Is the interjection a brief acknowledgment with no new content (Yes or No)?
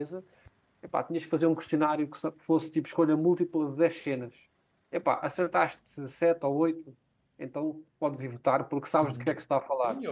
No